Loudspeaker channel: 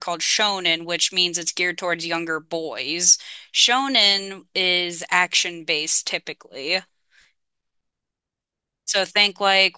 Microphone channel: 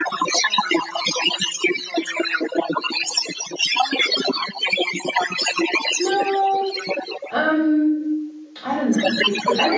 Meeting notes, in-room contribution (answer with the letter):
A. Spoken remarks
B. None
A